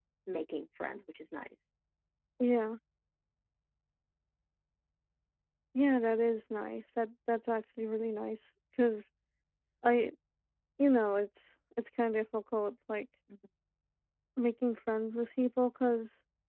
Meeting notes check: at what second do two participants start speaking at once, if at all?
none

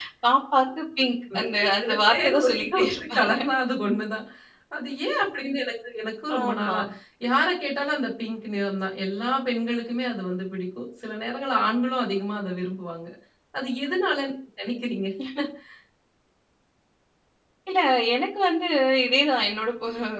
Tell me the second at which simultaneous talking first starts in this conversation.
1.3 s

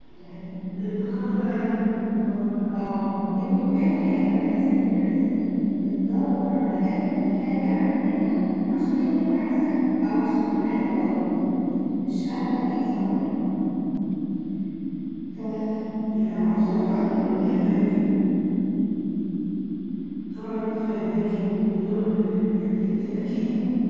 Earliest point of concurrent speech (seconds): 16.2 s

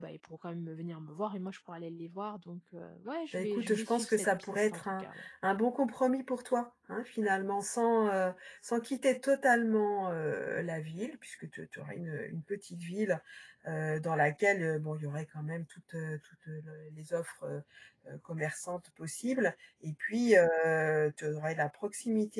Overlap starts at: 3.3 s

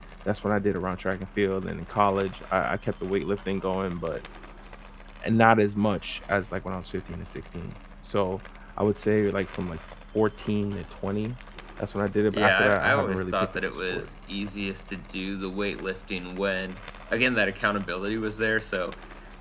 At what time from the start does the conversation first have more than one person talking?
12.3 s

